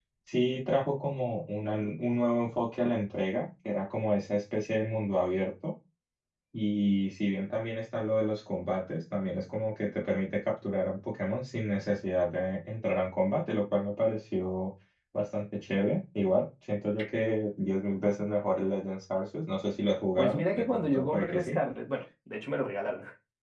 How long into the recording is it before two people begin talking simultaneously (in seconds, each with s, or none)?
20.2 s